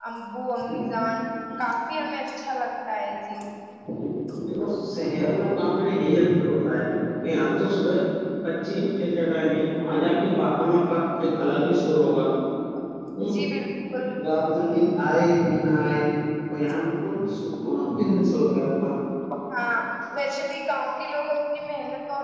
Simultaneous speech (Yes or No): No